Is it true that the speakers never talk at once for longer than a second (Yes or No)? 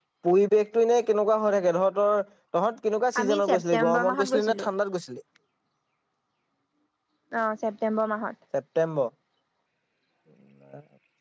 No